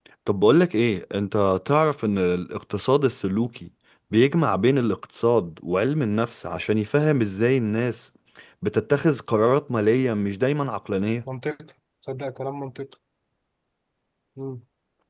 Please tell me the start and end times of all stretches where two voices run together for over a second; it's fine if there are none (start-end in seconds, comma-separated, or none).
none